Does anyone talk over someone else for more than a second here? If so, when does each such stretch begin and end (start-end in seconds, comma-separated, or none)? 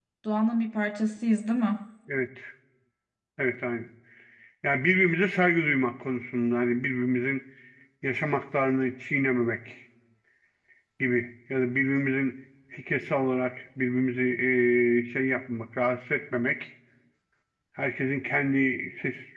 none